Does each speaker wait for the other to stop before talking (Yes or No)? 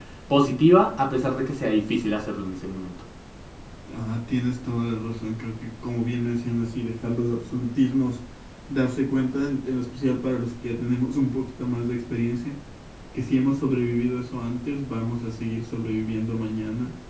Yes